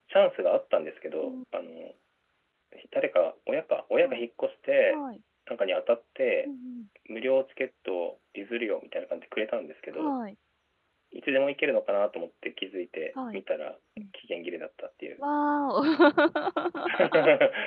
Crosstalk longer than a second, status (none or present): none